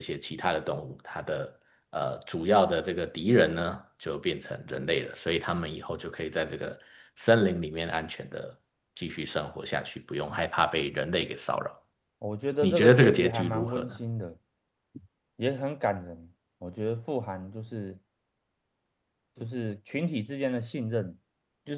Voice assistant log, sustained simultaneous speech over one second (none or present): present